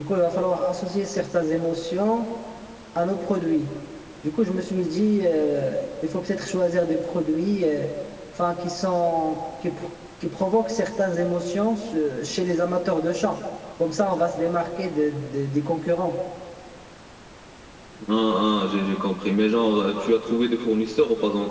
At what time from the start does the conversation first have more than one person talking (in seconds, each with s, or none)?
none